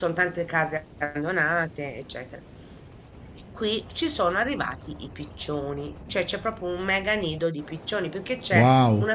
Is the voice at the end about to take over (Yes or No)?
No